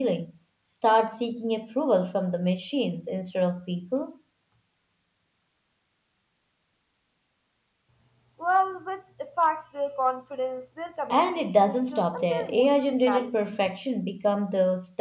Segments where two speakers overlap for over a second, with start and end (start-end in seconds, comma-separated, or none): 11.1-13.6